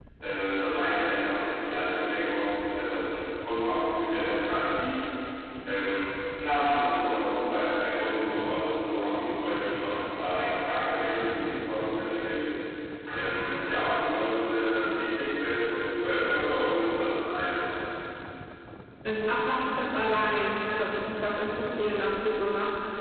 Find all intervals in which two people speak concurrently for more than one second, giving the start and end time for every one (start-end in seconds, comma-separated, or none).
none